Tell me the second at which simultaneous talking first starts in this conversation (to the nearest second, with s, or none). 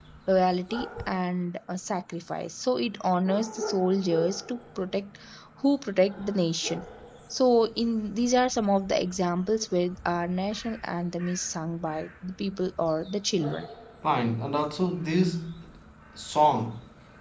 none